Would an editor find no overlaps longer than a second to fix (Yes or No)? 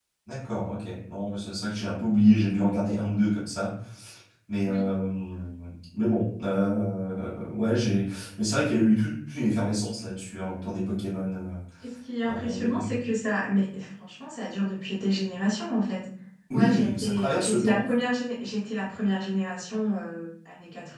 No